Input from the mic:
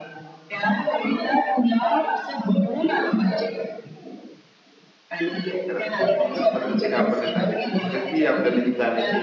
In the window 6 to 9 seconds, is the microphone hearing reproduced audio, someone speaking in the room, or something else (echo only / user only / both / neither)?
both